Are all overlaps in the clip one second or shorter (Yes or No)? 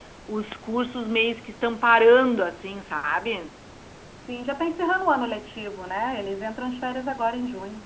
Yes